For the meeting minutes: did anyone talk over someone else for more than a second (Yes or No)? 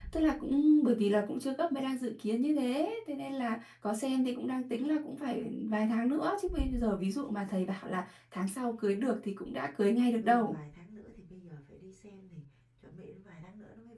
No